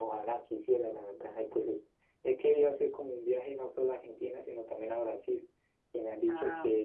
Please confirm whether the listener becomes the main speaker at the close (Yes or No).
No